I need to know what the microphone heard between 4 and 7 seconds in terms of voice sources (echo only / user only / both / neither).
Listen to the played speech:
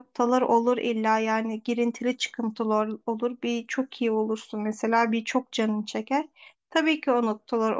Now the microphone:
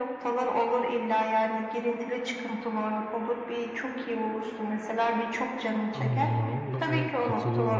both